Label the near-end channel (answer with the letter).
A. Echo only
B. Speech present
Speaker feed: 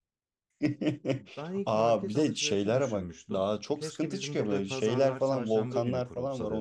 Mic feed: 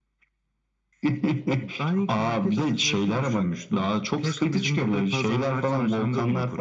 A